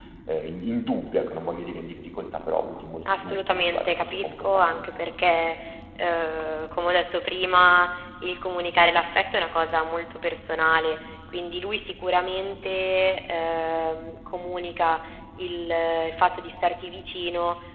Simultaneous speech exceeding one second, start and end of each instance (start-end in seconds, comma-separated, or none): 3.1-4.8